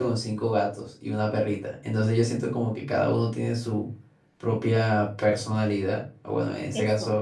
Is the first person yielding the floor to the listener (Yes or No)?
No